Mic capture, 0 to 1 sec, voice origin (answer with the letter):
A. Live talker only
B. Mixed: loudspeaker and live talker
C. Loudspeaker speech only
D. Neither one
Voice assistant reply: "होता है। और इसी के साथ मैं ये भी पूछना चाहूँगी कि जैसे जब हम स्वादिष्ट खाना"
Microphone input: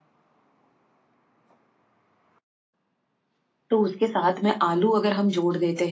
D